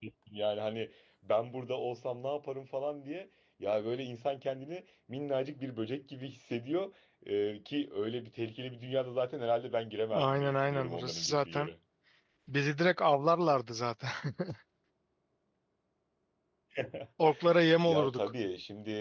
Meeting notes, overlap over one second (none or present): present